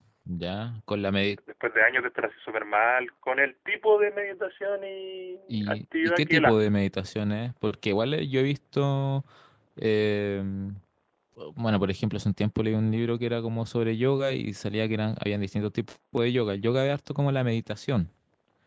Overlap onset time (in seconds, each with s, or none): 5.5 s